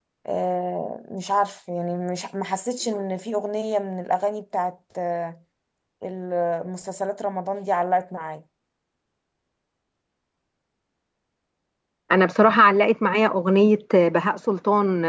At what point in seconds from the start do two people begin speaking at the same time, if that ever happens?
none

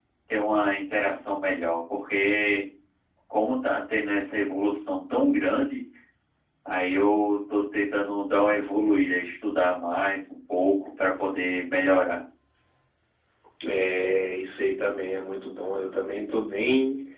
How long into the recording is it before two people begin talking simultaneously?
none

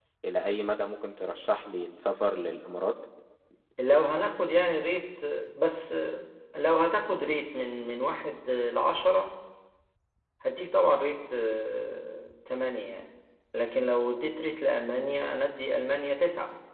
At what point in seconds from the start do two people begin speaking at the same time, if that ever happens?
none

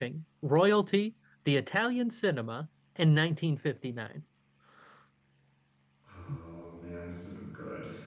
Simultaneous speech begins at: none

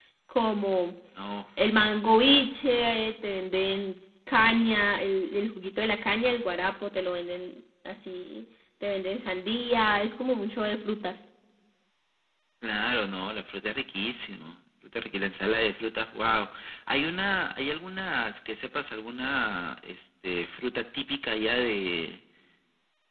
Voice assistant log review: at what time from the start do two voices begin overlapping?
none

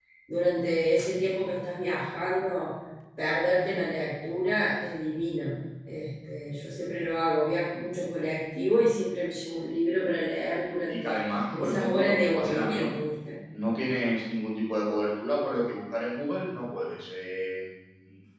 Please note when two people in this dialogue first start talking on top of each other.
10.9 s

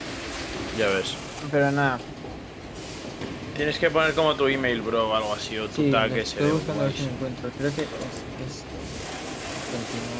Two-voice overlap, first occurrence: 5.7 s

